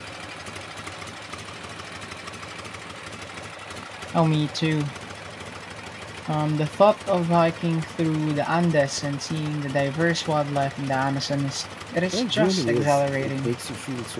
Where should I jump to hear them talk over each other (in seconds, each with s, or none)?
12.1 s